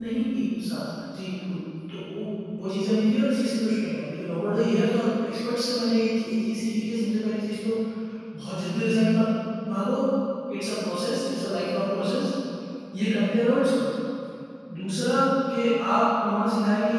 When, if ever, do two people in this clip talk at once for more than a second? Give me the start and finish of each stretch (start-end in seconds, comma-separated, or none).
none